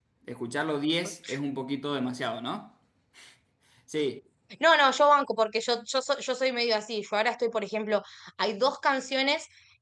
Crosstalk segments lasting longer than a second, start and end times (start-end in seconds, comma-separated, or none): none